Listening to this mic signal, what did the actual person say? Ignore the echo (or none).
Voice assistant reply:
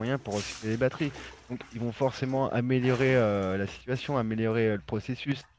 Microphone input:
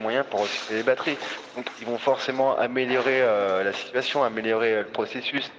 none